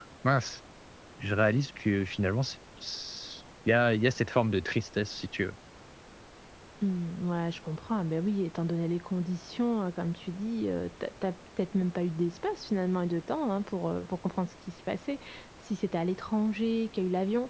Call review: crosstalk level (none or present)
none